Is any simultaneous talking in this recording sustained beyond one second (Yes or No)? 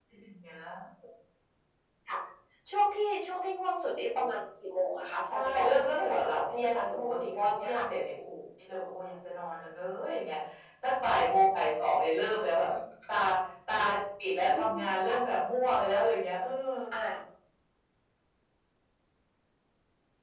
Yes